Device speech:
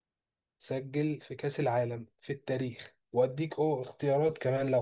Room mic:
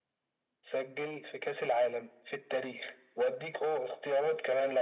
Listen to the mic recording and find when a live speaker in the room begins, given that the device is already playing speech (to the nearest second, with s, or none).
none